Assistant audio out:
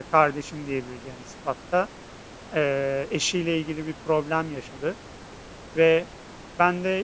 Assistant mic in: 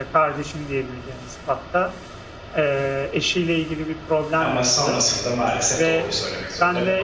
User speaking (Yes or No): Yes